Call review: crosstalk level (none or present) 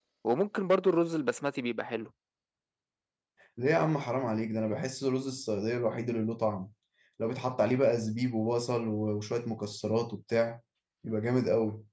none